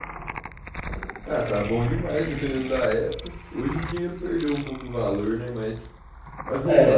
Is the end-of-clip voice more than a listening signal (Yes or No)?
Yes